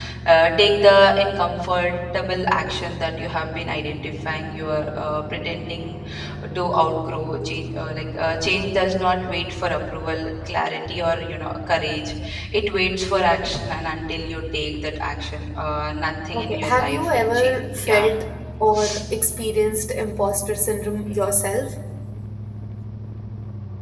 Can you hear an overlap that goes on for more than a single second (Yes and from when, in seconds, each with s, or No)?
Yes, from 16.3 s